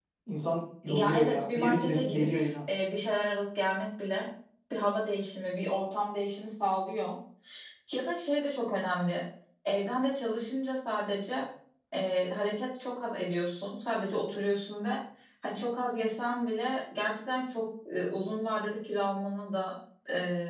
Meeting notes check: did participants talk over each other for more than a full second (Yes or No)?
Yes